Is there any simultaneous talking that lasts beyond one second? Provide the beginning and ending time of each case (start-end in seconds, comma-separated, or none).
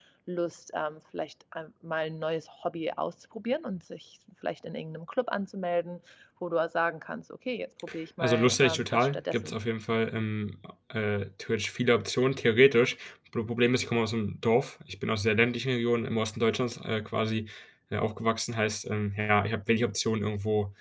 8.2-9.6